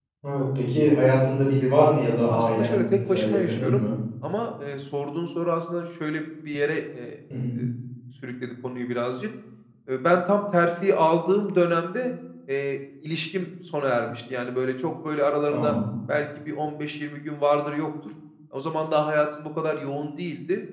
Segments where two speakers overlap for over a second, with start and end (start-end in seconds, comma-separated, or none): 2.3-3.9